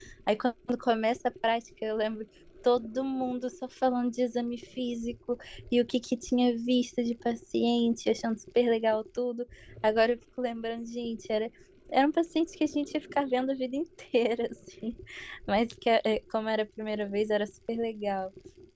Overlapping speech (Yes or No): No